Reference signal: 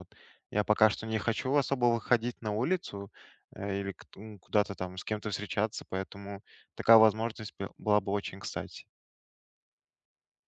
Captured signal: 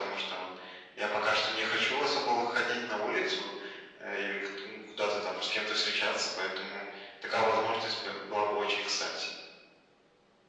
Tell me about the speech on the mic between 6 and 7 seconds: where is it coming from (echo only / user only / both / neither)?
echo only